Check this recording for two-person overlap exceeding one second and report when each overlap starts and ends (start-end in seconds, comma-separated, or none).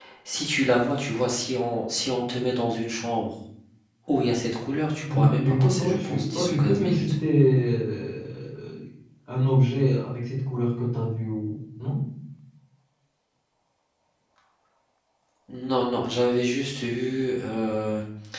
5.1-7.1